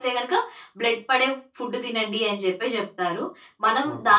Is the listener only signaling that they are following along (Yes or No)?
Yes